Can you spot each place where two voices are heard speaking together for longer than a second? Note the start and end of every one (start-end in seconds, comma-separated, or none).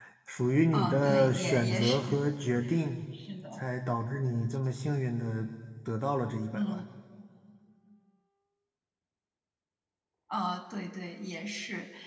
0.7-2.0